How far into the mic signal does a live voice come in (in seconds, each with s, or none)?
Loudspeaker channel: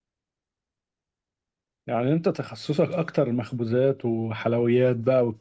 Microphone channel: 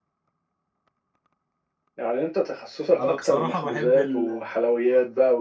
3.0 s